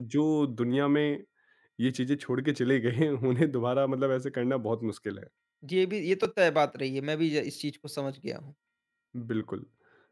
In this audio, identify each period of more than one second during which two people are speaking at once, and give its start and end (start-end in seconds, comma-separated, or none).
none